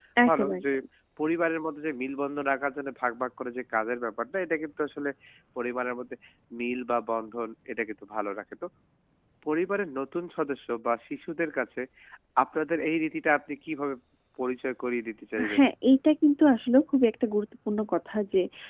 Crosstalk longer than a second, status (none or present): none